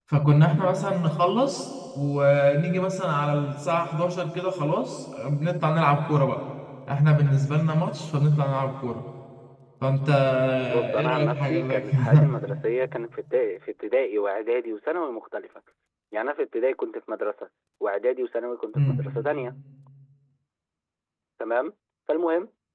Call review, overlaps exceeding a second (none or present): present